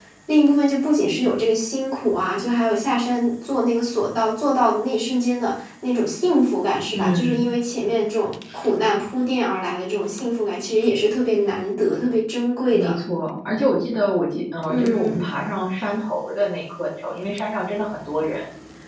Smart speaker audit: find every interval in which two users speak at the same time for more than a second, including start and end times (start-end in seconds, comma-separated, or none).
none